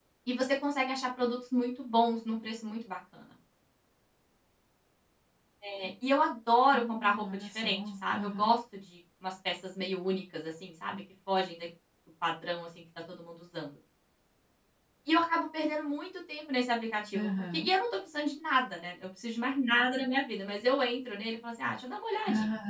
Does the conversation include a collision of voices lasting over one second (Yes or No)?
Yes